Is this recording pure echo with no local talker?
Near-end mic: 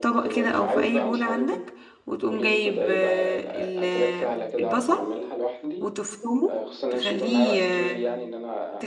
No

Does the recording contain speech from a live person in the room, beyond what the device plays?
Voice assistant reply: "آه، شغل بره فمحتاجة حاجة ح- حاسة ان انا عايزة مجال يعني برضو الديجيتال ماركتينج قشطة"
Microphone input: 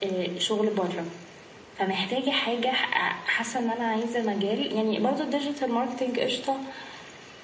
No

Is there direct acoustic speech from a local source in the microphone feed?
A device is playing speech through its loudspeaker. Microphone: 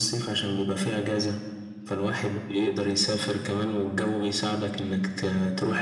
No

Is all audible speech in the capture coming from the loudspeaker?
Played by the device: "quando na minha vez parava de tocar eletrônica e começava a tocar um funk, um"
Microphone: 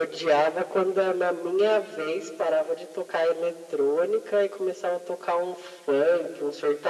Yes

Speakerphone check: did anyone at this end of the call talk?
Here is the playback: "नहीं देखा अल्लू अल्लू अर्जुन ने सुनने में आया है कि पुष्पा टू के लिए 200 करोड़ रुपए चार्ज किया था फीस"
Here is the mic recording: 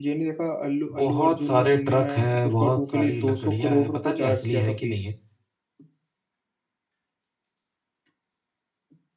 Yes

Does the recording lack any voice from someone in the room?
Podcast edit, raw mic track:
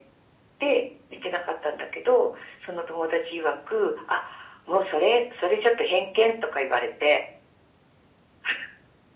Yes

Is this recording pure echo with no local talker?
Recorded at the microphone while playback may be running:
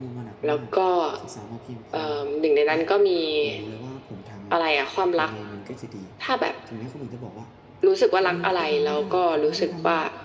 No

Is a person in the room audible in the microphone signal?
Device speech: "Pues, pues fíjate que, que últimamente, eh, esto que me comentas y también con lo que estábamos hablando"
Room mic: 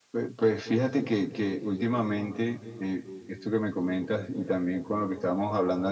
No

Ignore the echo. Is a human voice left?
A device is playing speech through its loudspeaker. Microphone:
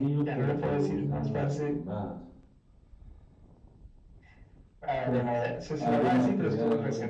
Yes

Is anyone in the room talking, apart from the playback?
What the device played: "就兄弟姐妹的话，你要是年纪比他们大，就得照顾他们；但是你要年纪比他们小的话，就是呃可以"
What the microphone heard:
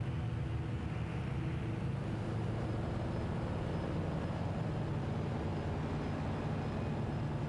No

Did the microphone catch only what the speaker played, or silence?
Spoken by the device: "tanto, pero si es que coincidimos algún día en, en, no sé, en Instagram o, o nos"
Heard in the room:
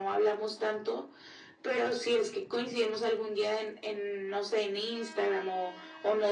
Yes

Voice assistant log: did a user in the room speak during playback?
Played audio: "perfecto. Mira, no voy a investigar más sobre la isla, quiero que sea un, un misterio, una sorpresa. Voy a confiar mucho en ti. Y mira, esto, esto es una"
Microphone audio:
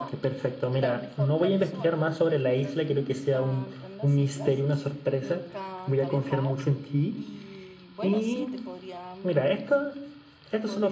Yes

